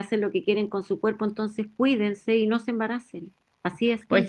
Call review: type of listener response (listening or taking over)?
taking over